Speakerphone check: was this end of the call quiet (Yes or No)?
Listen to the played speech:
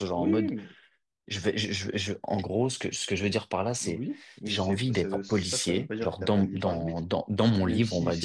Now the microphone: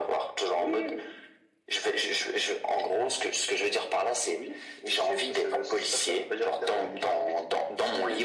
Yes